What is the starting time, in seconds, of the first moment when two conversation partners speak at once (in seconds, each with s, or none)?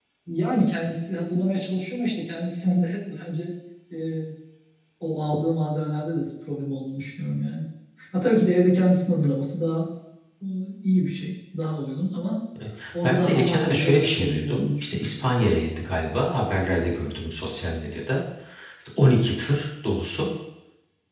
13.0 s